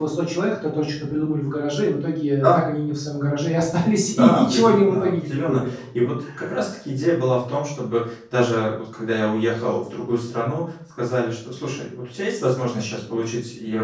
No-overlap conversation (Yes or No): No